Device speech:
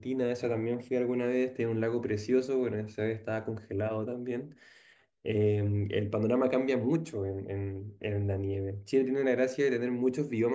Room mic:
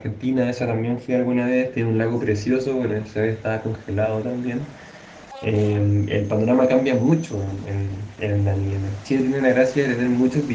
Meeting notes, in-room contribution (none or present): none